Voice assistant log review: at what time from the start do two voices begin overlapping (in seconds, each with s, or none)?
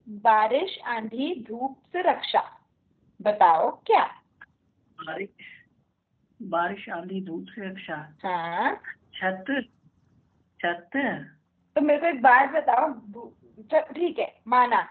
none